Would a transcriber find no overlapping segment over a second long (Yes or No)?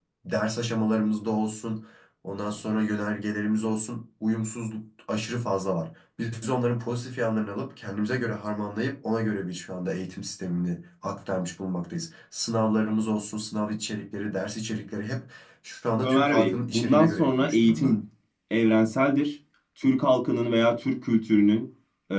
No